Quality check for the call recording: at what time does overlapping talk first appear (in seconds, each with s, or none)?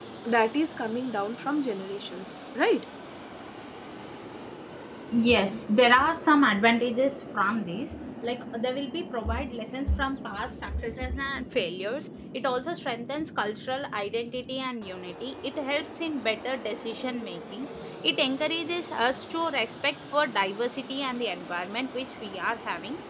none